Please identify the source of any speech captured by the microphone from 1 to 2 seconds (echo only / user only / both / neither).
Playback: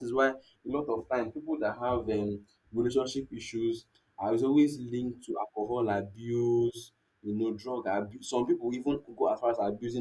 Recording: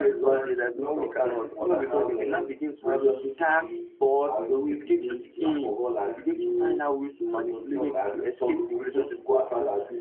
both